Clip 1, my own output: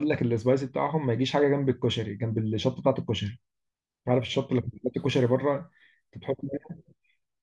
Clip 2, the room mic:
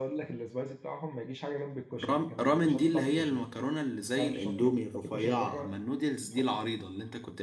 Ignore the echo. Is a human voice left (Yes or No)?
Yes